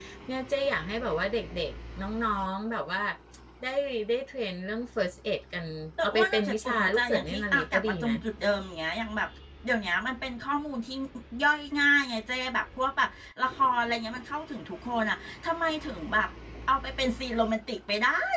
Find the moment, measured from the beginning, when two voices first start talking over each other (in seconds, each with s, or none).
6.0 s